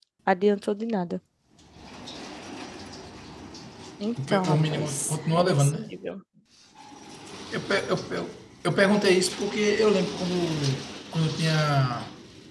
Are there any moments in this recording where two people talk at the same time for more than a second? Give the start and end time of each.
4.3-5.9

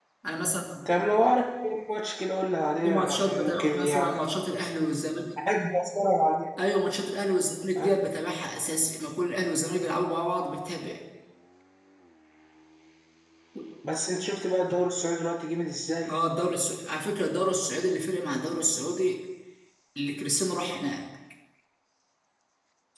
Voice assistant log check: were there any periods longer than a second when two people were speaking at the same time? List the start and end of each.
2.8-4.1

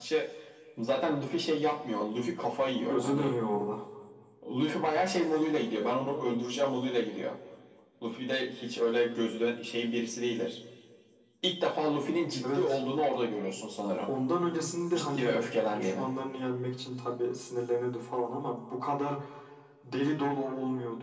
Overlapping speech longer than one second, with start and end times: none

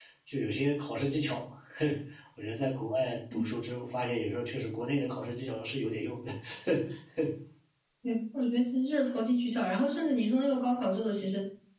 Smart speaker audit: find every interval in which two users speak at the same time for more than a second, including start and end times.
none

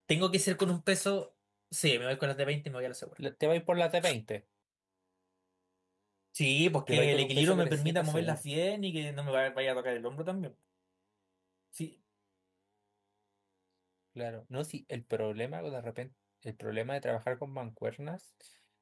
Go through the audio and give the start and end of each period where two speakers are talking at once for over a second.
6.9-8.4

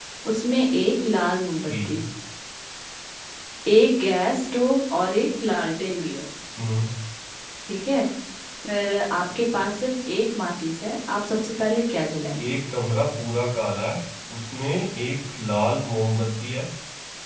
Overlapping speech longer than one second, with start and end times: none

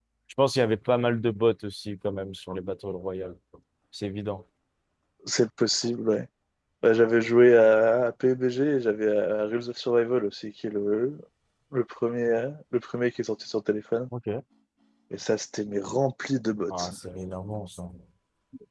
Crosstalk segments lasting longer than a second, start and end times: none

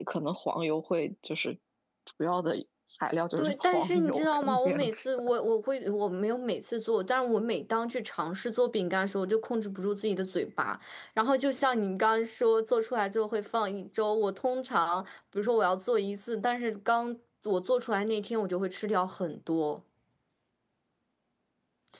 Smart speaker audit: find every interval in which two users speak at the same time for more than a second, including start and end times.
3.4-5.0

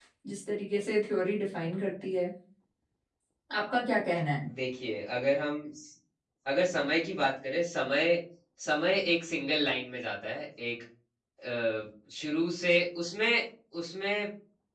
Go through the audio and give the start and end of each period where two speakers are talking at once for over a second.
none

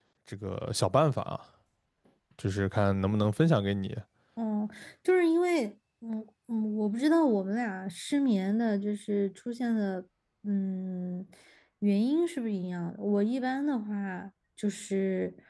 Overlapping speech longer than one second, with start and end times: none

